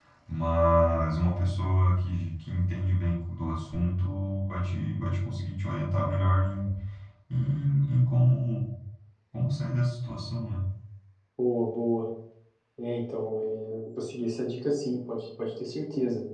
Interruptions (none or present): none